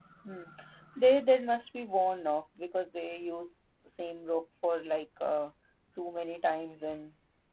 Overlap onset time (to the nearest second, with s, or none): none